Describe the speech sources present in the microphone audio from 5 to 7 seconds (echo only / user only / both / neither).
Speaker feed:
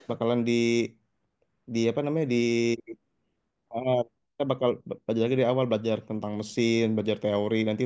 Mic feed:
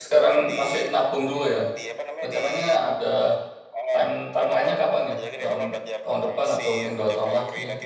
both